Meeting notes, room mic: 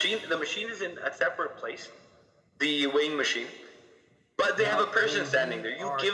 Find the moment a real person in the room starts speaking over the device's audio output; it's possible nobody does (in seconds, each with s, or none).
4.5 s